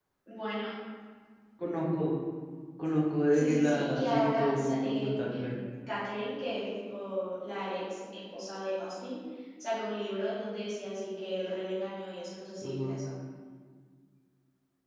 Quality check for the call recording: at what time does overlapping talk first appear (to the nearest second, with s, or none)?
3 s